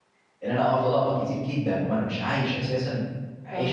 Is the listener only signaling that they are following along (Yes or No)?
No